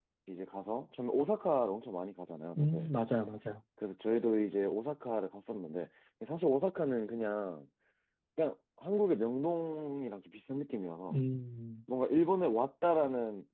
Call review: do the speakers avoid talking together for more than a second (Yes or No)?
Yes